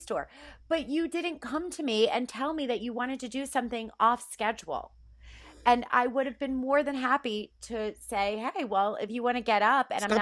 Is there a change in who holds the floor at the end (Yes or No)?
Yes